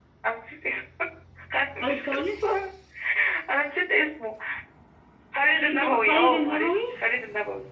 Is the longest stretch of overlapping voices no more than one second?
No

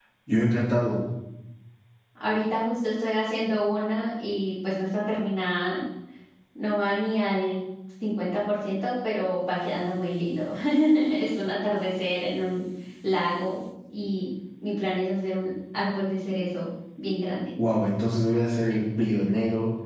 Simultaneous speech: No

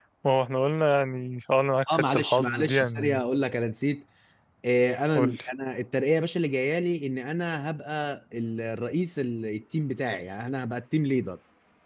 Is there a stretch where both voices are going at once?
Yes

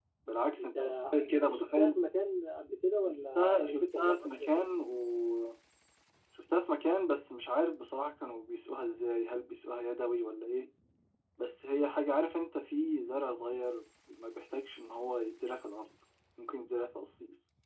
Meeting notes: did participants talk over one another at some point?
Yes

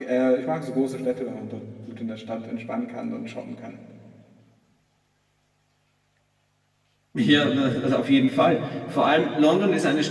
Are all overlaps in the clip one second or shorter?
Yes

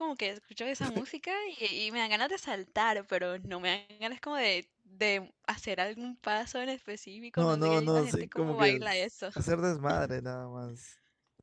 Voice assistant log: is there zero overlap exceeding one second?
No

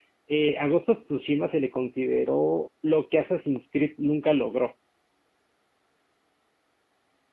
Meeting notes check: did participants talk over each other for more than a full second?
No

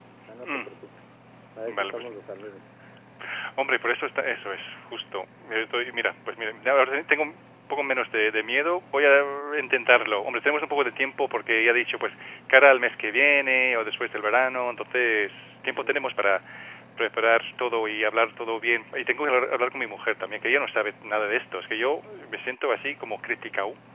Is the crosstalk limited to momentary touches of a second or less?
Yes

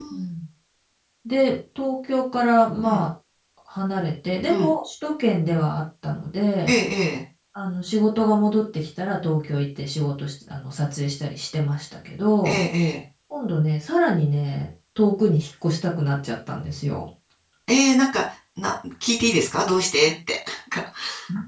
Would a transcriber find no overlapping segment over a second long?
Yes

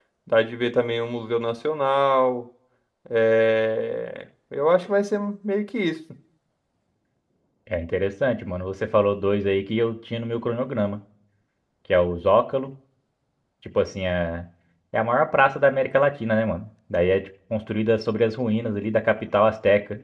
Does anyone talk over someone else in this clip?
No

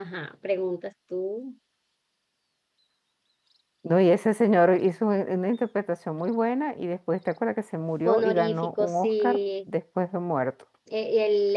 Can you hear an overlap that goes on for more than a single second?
Yes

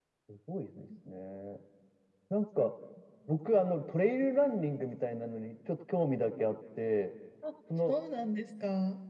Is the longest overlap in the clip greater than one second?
No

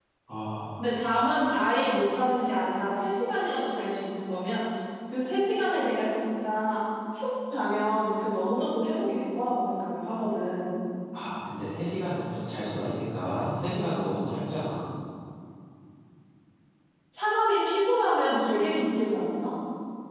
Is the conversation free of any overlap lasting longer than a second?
Yes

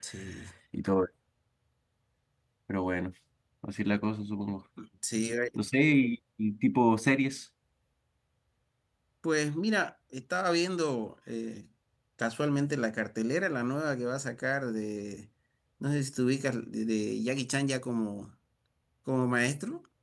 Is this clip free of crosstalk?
Yes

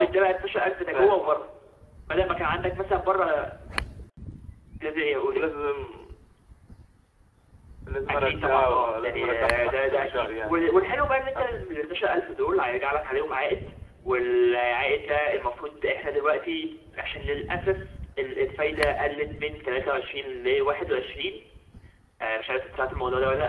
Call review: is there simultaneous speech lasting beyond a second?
Yes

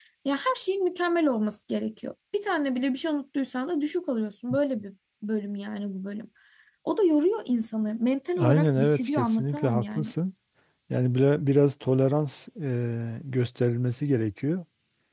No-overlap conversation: No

